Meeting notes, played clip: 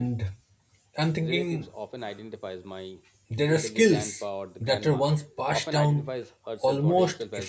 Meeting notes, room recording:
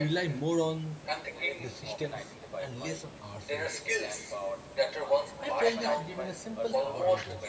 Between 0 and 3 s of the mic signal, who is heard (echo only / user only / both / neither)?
both